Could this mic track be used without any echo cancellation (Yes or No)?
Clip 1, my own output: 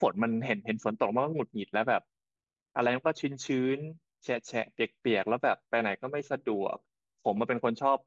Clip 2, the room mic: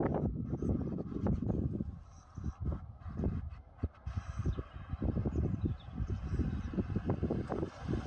Yes